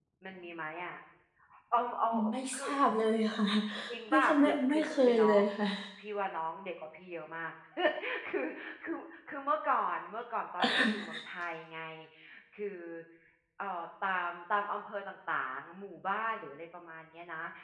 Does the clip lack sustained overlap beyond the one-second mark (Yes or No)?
No